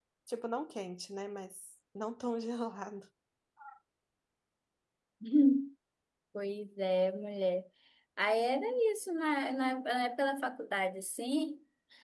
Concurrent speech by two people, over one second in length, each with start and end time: none

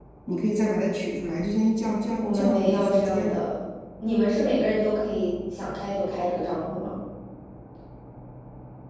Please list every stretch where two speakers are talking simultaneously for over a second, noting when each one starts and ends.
2.2-3.5

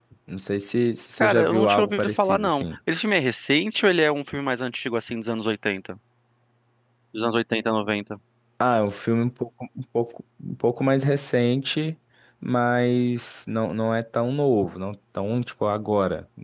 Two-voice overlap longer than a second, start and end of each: 1.2-2.6

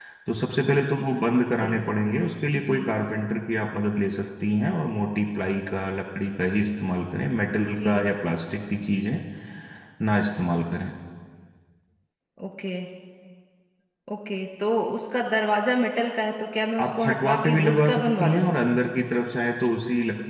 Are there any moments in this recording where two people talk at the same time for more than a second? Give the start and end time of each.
16.8-18.5

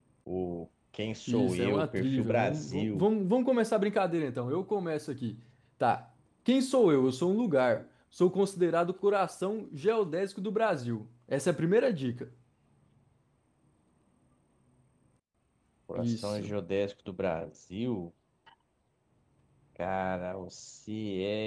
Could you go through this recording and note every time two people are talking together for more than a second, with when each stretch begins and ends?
1.3-3.1

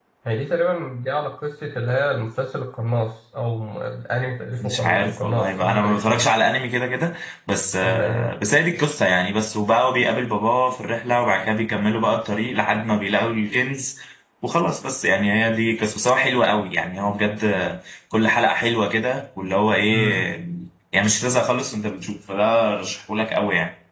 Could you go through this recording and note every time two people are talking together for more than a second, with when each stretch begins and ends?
4.6-6.3

